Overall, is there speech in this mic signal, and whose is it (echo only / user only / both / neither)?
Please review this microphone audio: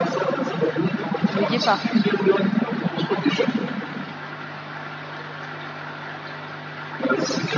both